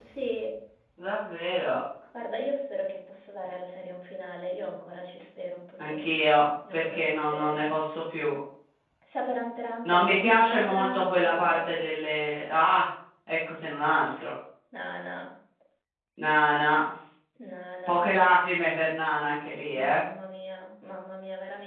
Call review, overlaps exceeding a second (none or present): present